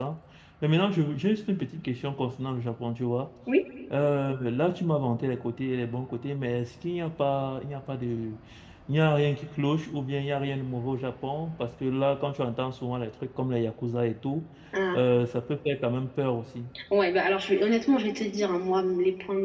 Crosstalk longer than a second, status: none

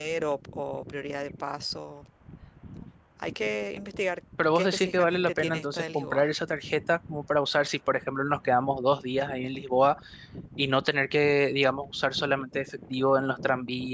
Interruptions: present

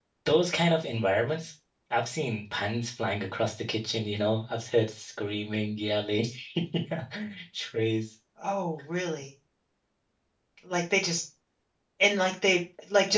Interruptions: none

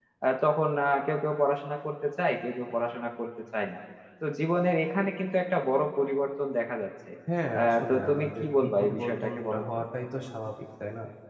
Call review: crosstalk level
present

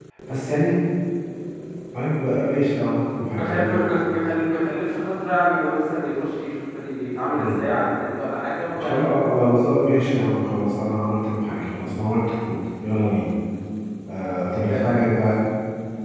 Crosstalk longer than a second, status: none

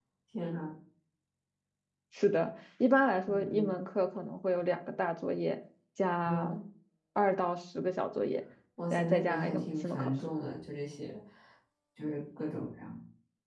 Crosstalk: present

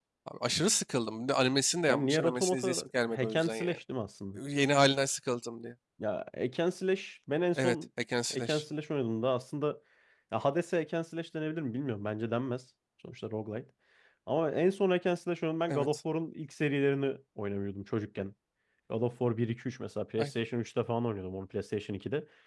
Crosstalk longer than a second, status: present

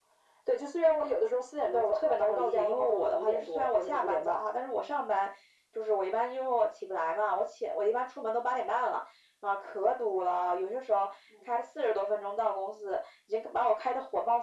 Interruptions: present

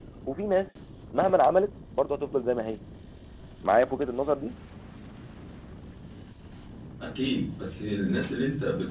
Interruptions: none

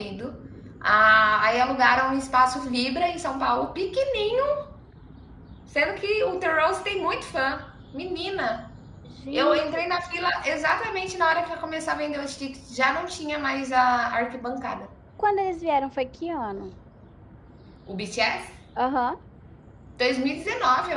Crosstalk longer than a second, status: none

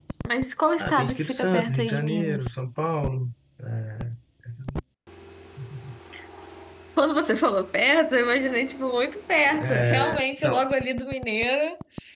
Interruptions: present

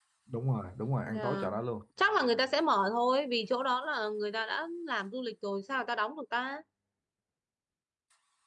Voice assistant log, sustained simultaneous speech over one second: none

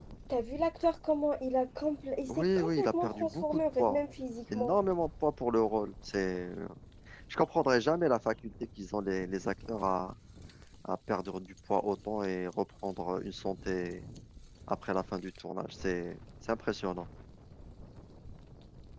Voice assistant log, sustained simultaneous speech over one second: present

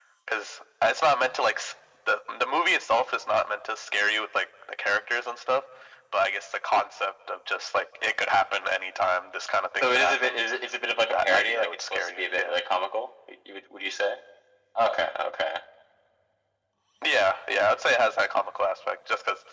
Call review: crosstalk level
present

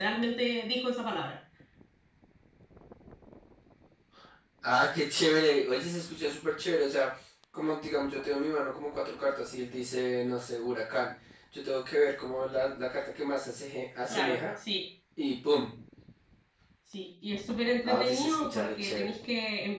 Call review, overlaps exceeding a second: present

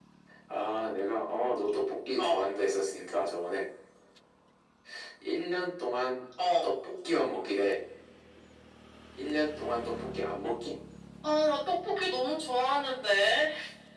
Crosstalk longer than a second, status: none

